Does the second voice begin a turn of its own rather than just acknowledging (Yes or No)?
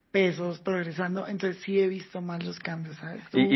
Yes